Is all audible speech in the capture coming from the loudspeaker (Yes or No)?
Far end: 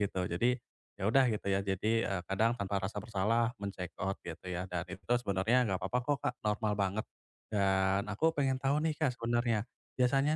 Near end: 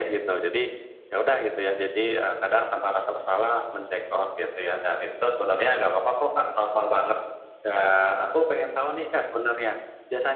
Yes